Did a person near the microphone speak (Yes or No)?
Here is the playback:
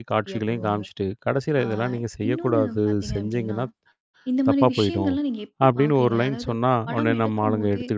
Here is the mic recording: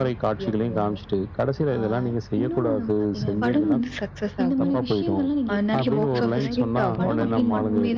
Yes